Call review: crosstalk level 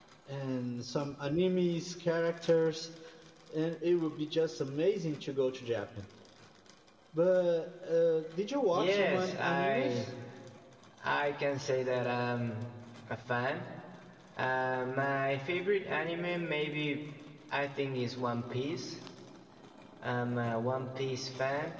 present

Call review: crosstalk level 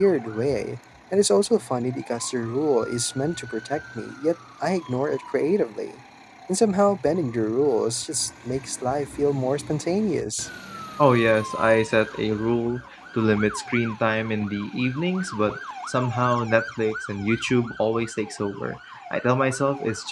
none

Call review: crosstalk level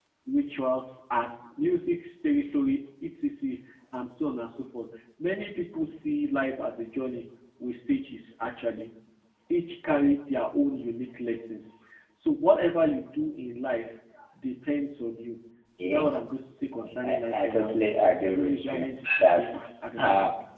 present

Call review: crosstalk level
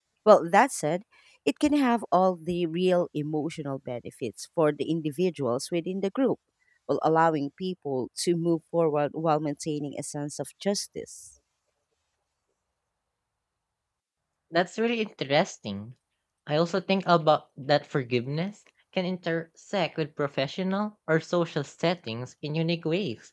none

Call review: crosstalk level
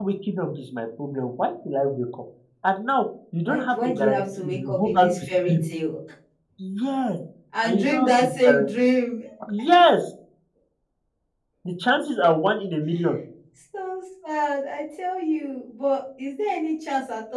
present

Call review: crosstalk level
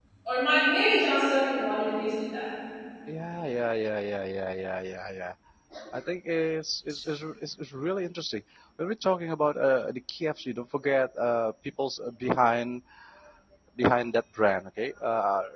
none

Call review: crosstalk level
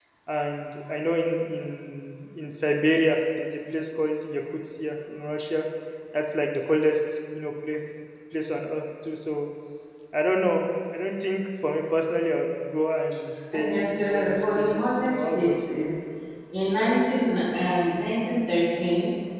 present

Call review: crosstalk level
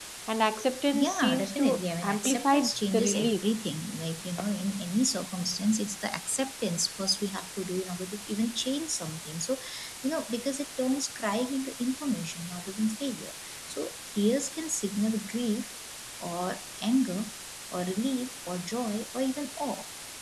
present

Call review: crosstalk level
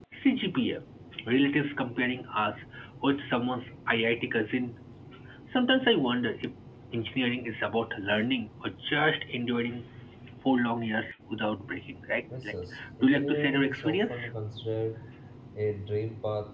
present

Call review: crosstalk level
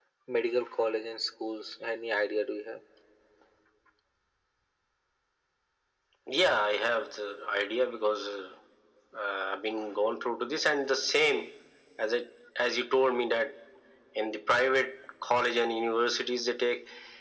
none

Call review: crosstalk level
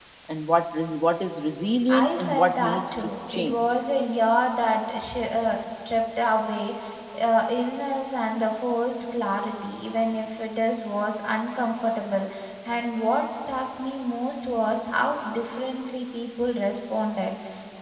present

